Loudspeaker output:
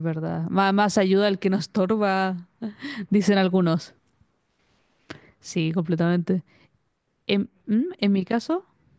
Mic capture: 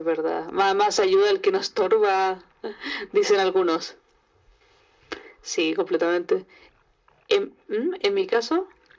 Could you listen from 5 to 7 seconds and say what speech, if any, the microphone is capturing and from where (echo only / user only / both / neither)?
echo only